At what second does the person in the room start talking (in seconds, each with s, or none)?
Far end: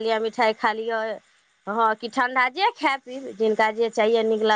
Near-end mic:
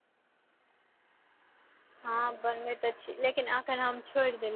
2.0 s